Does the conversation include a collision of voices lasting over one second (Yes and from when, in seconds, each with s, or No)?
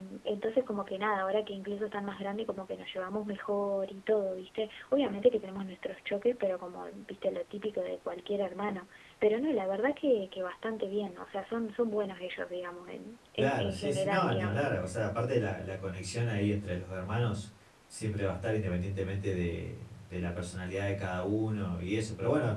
Yes, from 13.4 s